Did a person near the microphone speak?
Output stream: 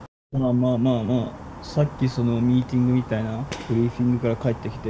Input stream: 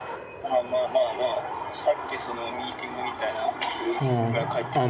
Yes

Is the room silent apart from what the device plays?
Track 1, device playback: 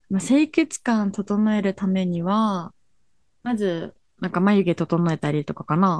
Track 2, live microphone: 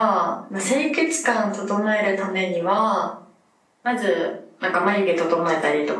Yes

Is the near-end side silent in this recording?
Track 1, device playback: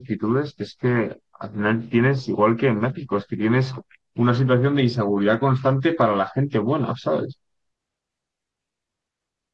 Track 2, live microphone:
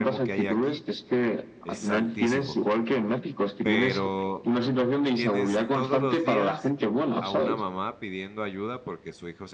No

